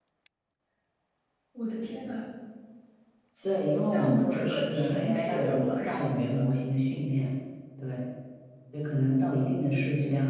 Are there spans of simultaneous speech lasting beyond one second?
Yes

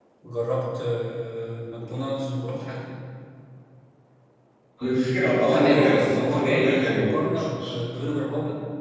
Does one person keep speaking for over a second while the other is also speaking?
Yes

